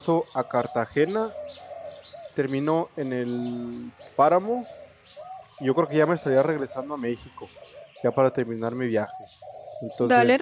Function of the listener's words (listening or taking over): taking over